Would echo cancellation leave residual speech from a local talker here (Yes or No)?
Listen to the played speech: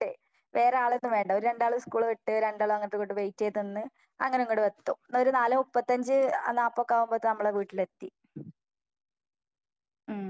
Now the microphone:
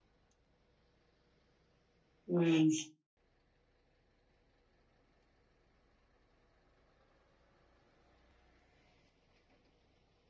Yes